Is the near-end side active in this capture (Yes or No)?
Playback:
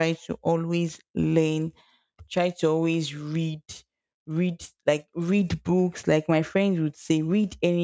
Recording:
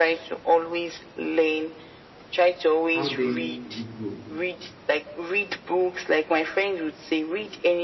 Yes